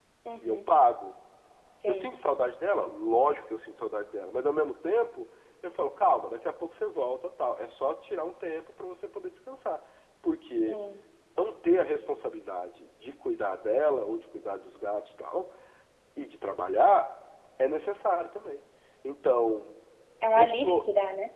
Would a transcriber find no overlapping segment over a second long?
Yes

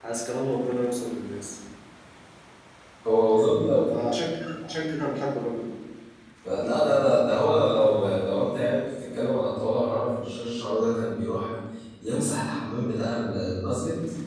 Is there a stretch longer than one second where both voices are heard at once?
No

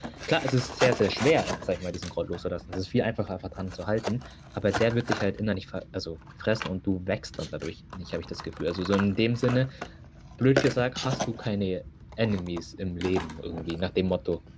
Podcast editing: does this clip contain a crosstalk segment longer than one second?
No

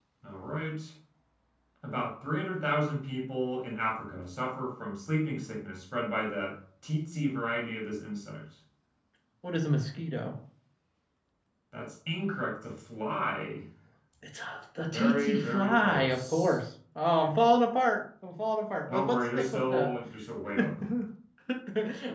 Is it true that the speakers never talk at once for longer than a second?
No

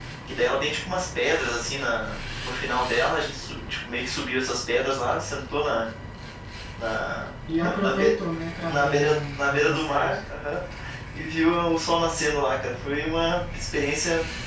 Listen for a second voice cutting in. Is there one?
Yes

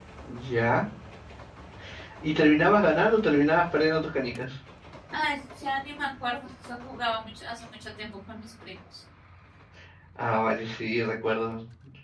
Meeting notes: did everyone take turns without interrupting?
Yes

